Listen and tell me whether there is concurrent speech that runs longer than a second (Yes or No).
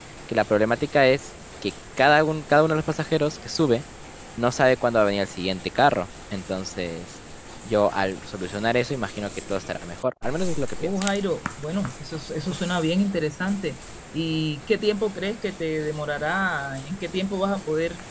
No